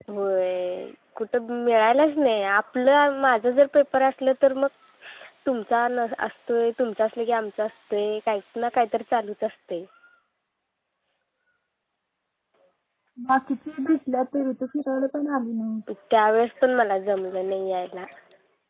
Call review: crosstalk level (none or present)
none